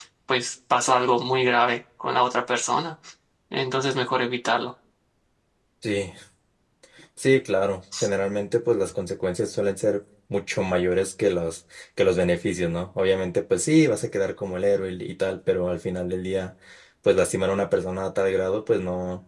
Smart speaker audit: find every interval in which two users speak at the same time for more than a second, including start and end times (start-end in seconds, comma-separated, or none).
none